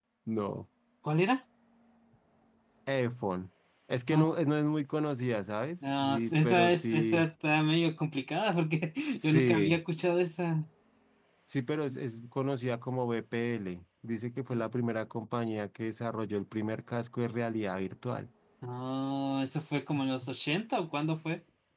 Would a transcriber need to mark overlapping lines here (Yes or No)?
Yes